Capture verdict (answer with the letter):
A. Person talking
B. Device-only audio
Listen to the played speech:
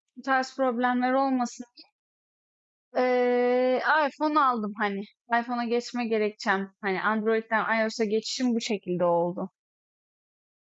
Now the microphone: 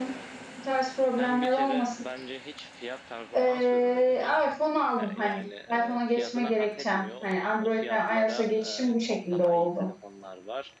A